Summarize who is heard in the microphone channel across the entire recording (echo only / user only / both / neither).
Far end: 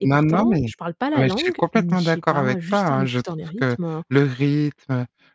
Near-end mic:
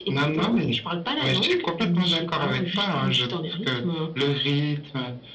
echo only